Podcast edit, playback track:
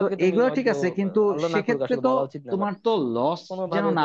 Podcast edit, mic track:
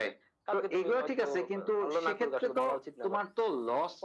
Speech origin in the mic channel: echo only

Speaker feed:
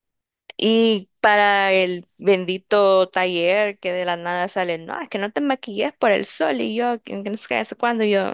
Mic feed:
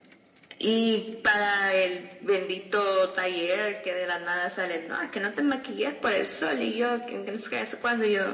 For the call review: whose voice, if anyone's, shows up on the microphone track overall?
echo only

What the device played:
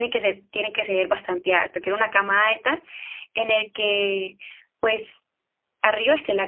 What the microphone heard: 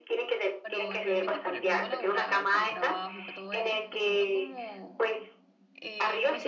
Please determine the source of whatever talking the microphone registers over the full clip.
both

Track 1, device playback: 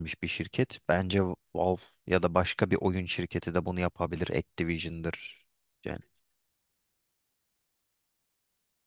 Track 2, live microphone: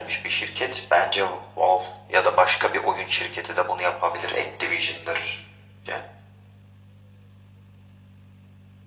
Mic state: echo only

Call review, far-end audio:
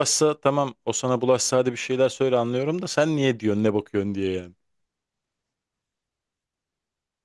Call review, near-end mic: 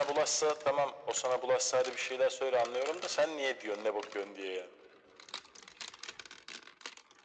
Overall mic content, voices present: echo only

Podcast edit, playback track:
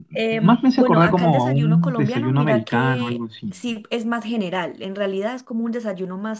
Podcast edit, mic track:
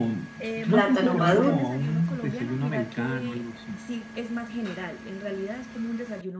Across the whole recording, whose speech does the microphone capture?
both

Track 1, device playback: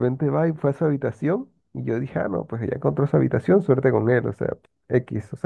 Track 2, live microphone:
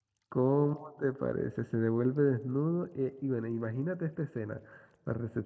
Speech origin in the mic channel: user only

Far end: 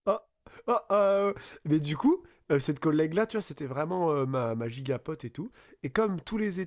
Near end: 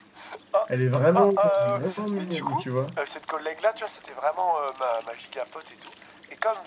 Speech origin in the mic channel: both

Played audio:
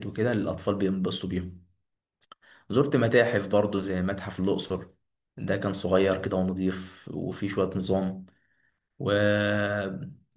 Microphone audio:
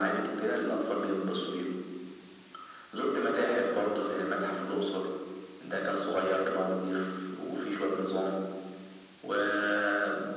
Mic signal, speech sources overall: echo only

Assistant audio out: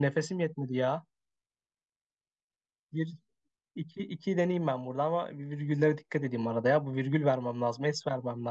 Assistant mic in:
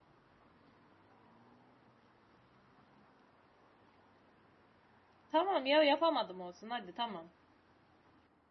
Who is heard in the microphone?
user only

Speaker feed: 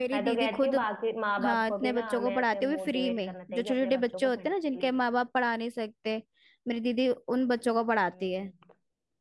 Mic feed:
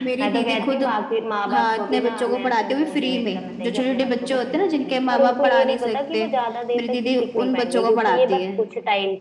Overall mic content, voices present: both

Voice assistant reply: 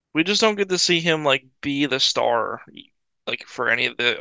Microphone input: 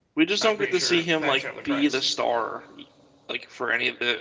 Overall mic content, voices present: both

